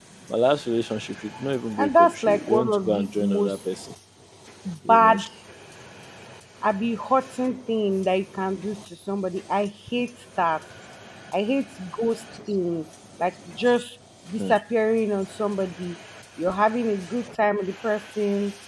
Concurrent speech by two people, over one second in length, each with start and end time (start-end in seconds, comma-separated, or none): 1.8-3.6